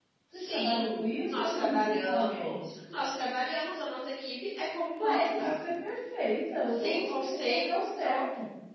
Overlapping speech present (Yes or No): Yes